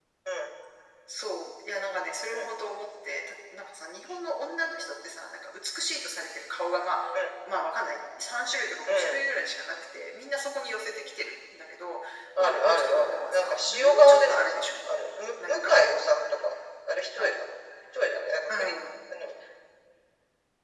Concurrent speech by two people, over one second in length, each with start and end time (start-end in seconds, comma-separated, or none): 12.4-14.7